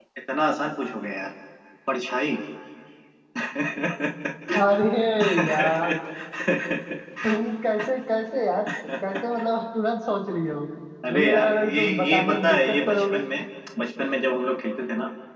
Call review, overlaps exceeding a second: present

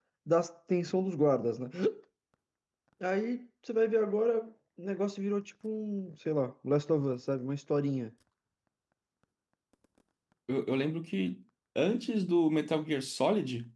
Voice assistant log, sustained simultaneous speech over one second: none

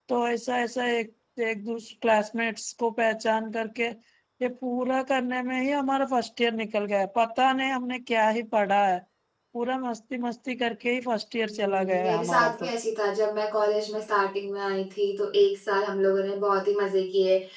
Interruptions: present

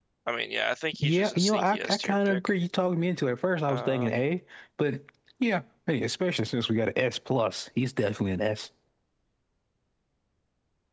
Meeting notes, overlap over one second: present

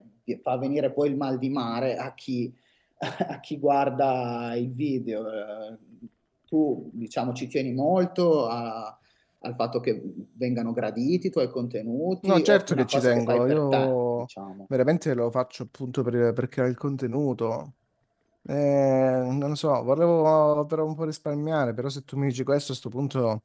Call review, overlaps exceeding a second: present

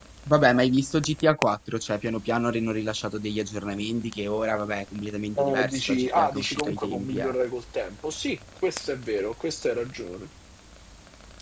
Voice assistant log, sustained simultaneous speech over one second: present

